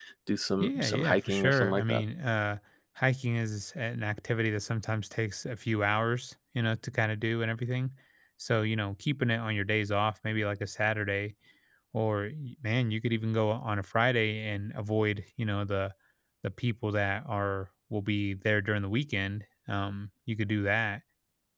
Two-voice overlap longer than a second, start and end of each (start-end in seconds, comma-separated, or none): 0.6-2.0